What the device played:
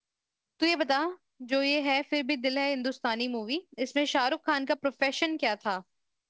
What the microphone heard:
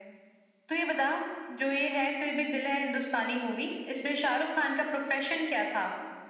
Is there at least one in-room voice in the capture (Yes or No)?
No